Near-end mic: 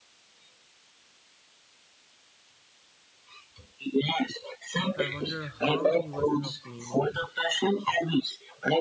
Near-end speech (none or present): present